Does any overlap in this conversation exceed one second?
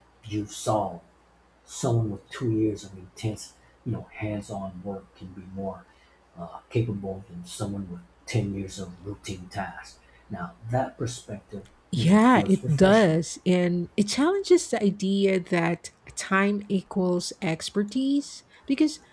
Yes, from 11.9 s

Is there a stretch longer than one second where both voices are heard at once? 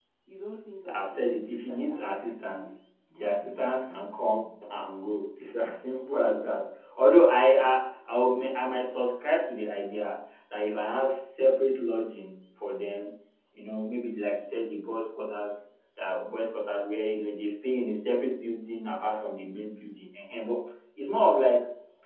Yes, from 0.9 s

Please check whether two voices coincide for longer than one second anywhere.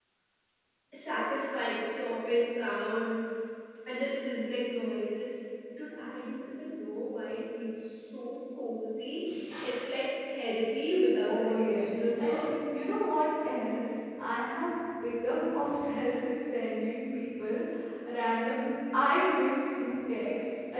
Yes, from 11.3 s

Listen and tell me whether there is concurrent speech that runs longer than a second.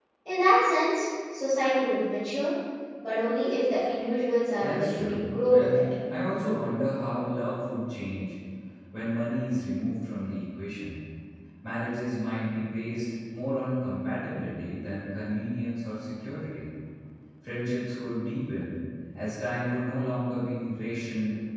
Yes, from 4.6 s

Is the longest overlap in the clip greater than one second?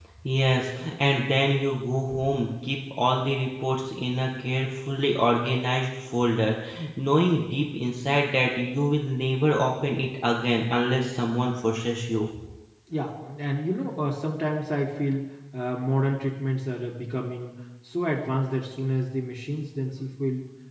No

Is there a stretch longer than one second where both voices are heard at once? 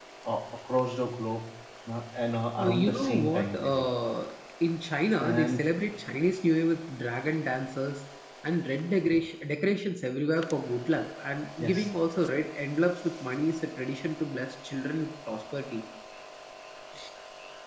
Yes, from 2.6 s

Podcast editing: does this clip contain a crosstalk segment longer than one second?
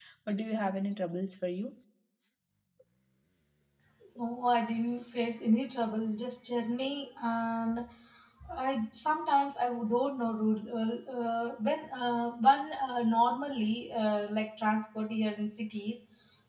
No

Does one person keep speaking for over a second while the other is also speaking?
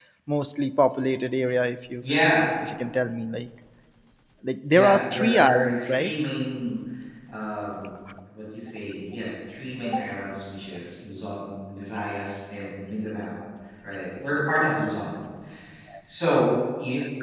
Yes, from 4.7 s

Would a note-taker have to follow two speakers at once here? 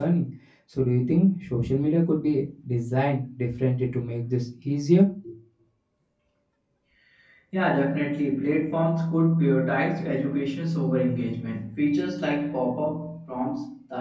No

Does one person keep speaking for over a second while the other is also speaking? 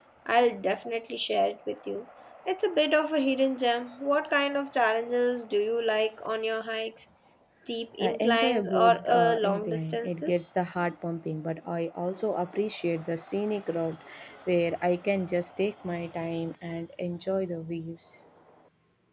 Yes, from 8.0 s

